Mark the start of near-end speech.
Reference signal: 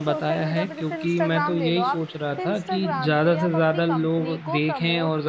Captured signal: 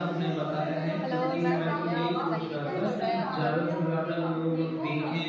1.0 s

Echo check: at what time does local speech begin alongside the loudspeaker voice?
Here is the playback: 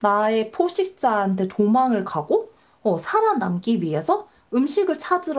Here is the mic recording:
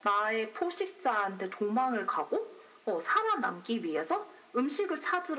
none

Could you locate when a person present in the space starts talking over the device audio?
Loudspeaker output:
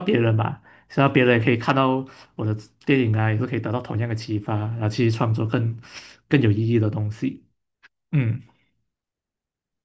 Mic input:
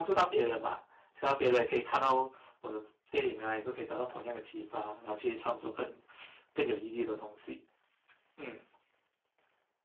none

